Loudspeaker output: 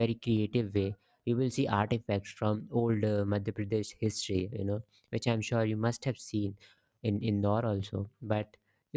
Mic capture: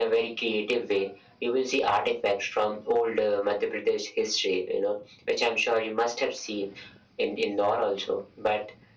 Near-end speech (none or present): none